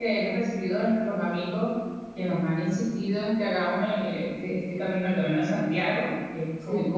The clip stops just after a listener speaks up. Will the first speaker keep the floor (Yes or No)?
Yes